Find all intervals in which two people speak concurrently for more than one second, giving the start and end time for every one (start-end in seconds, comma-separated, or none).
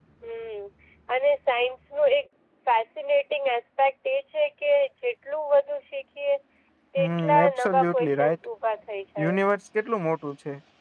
7.0-8.4